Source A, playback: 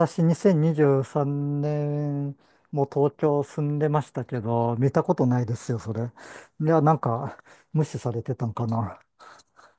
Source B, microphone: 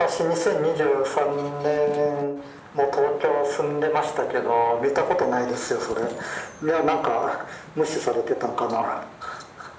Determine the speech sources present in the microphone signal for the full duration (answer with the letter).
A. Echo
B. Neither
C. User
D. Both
A